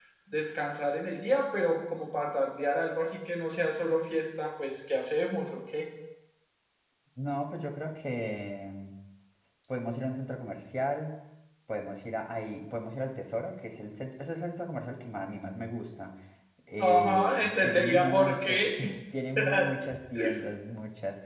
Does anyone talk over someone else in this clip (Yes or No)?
Yes